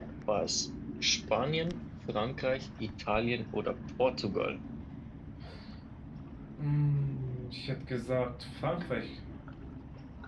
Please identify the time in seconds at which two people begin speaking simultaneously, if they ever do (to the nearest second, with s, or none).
none